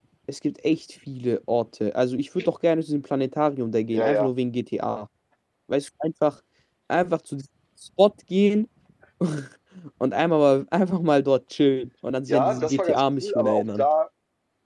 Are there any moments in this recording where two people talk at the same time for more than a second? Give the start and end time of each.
12.3-13.8

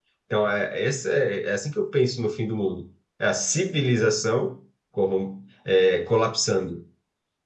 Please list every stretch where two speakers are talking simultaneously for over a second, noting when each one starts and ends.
none

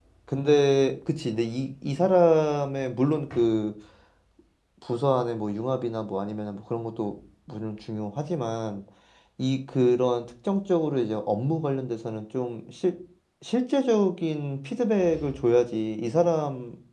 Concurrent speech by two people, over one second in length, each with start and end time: none

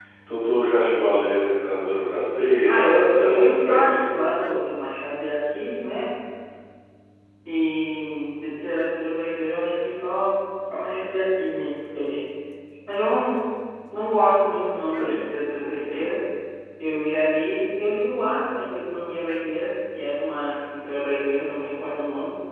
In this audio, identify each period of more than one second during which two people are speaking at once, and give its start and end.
2.7-4.1

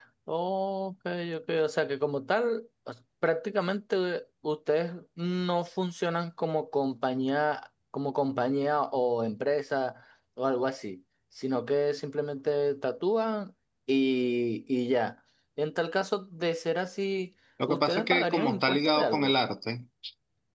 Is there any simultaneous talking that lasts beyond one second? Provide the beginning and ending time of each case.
17.7-19.3

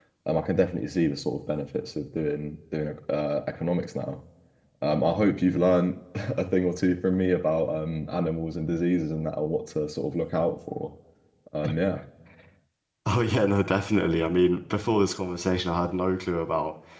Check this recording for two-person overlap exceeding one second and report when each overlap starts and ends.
none

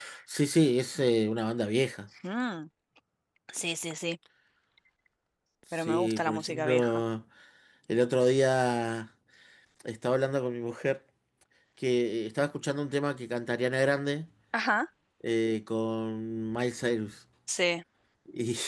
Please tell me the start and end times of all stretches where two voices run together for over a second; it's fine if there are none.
5.8-7.0

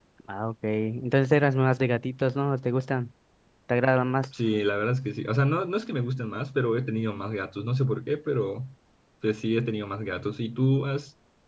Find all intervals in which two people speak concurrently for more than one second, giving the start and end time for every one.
none

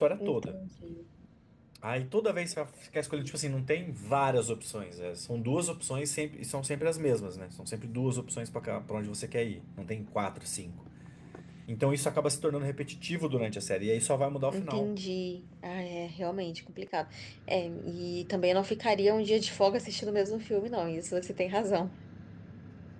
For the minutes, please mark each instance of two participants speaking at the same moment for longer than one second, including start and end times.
none

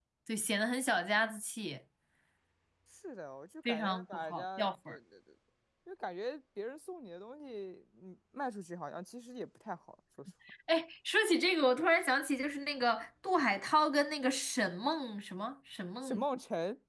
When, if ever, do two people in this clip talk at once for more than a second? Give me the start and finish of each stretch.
3.6-5.0

